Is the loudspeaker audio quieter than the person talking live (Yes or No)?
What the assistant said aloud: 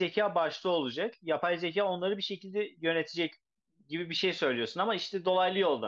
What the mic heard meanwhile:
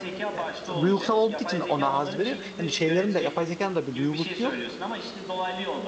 Yes